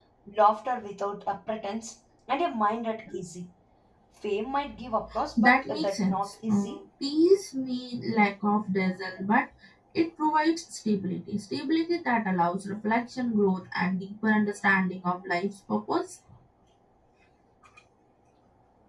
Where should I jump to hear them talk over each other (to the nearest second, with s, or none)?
5 s